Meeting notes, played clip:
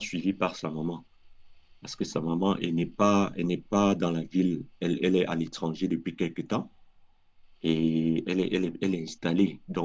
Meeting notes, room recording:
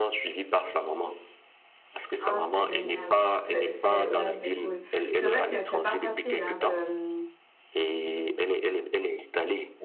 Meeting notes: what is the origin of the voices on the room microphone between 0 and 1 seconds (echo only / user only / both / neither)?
echo only